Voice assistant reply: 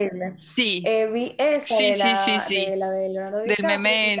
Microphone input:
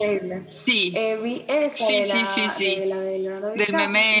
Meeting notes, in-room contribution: none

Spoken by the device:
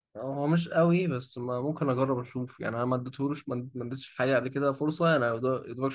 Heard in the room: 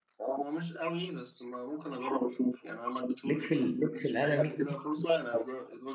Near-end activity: present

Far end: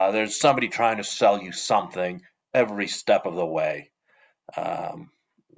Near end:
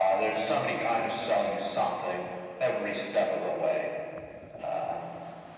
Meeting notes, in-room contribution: none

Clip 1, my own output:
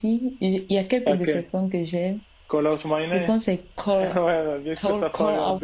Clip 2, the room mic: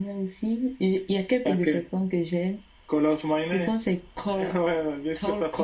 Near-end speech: none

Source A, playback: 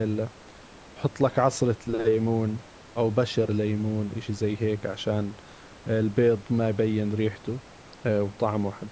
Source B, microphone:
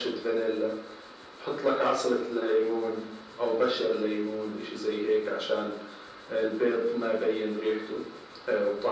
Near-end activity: none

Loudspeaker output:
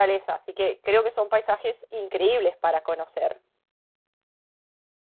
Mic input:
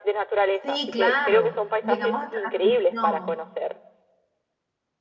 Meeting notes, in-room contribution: present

